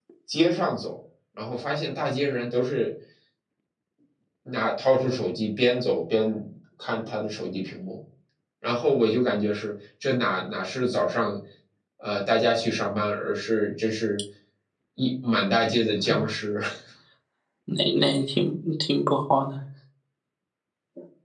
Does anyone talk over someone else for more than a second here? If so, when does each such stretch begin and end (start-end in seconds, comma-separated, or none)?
none